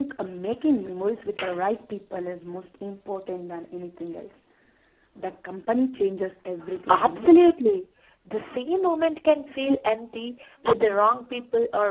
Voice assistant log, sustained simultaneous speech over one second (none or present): none